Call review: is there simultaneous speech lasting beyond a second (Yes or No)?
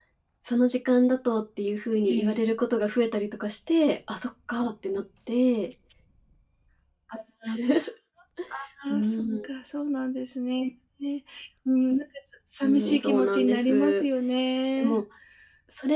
Yes